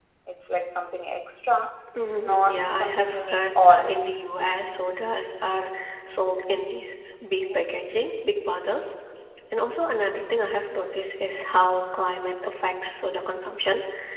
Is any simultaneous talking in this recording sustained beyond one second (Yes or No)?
Yes